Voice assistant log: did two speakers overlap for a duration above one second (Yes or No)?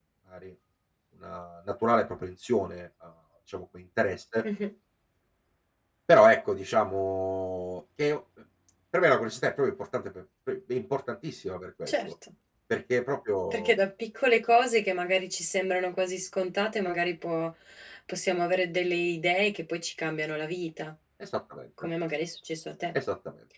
No